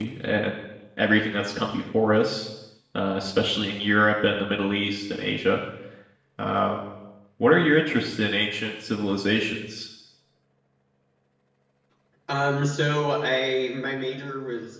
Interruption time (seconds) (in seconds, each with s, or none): none